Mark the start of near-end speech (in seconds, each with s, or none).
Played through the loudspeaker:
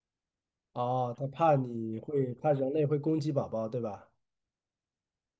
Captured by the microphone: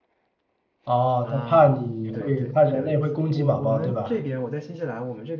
1.2 s